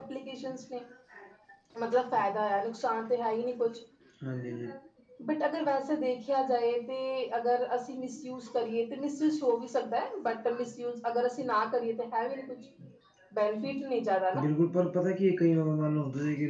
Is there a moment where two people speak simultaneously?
No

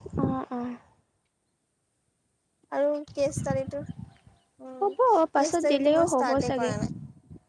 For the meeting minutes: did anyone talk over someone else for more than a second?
Yes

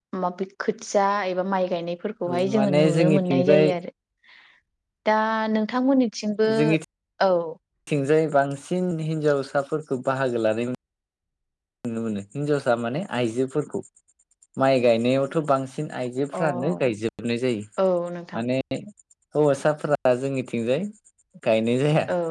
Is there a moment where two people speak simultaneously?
Yes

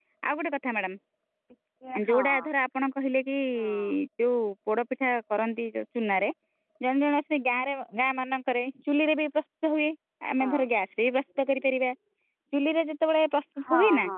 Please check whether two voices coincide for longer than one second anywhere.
No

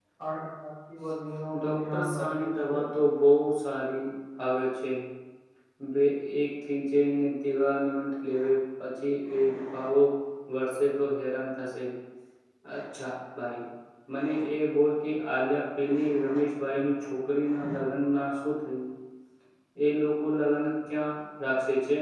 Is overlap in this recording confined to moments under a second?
No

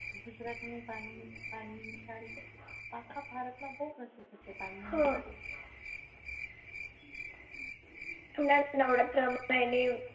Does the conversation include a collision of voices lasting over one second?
No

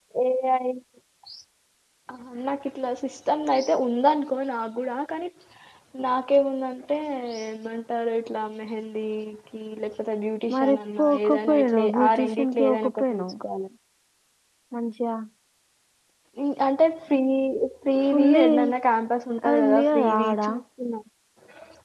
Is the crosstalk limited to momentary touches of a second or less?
No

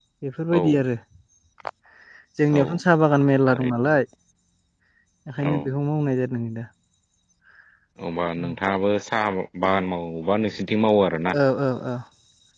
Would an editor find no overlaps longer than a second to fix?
Yes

